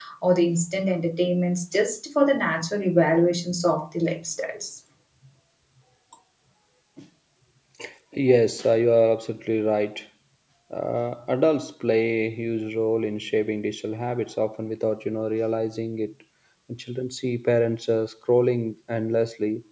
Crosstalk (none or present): none